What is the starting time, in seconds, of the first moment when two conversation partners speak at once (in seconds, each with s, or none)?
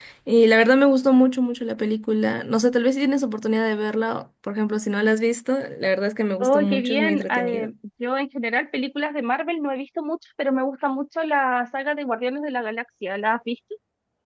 6.4 s